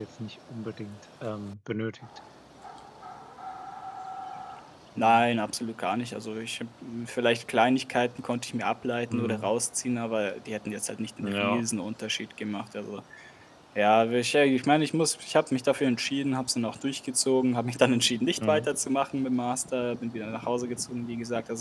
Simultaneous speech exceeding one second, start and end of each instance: none

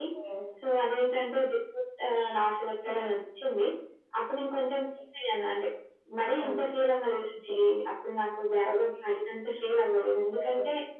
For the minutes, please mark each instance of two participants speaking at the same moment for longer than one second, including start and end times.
none

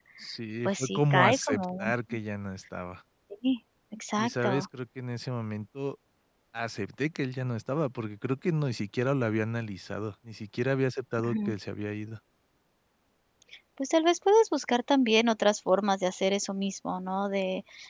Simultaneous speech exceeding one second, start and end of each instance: 0.7-1.9

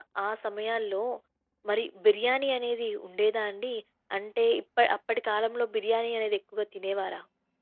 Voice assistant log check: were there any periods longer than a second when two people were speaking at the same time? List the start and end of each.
none

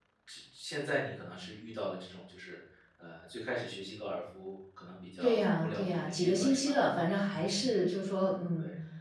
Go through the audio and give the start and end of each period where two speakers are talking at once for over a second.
5.2-6.8

